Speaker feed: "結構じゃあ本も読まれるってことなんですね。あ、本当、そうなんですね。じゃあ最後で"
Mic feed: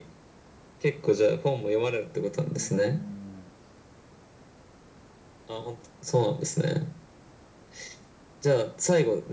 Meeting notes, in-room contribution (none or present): present